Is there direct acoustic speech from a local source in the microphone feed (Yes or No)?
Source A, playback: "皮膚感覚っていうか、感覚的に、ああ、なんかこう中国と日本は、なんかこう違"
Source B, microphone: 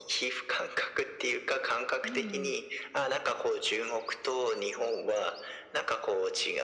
Yes